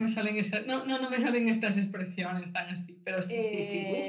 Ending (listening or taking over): taking over